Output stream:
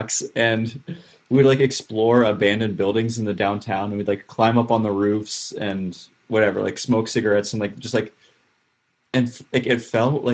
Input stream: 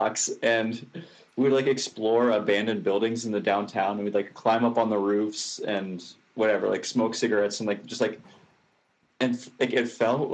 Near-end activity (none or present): none